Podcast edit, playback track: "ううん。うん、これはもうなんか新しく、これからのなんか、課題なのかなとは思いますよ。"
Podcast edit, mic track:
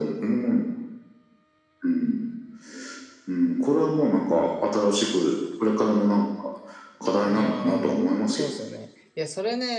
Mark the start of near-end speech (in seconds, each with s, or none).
7.3 s